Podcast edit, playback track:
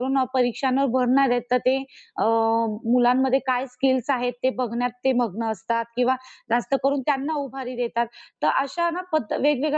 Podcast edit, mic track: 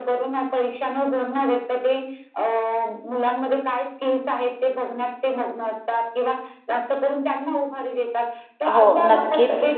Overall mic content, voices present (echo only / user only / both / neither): both